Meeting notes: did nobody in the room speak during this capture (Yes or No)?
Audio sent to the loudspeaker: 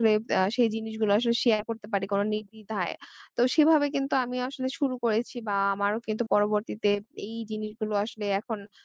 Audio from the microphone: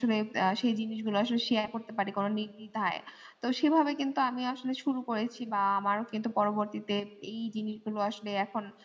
Yes